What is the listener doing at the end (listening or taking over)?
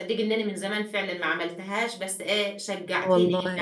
listening